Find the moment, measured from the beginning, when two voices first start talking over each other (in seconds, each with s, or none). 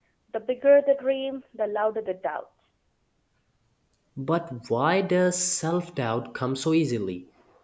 none